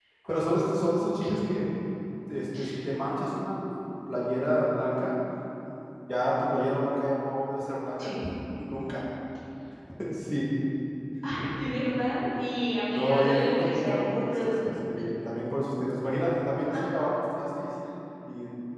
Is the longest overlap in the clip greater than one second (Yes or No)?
Yes